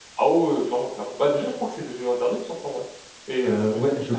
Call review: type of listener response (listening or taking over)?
taking over